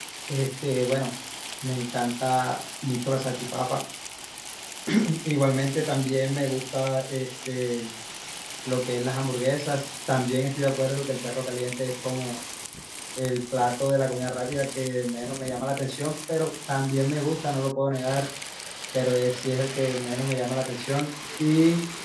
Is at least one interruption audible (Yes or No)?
No